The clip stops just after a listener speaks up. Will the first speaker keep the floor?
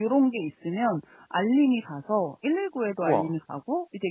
Yes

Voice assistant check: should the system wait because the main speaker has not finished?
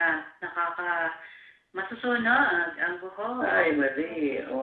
No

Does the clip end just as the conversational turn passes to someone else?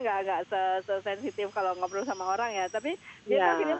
No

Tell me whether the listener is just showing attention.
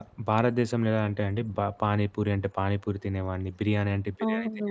No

